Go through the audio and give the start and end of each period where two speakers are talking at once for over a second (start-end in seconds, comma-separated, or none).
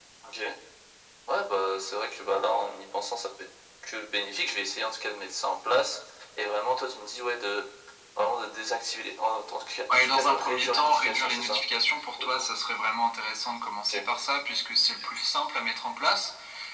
9.9-11.6